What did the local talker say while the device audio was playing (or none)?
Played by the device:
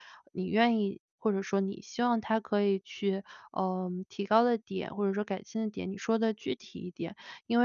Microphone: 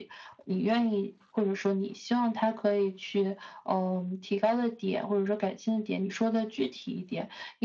none